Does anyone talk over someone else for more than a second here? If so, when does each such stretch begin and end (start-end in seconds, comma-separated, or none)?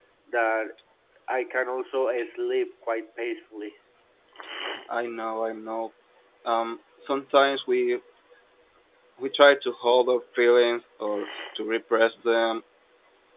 none